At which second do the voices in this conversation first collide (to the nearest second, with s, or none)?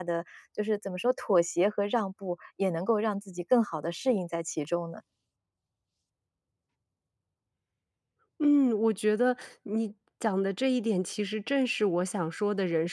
none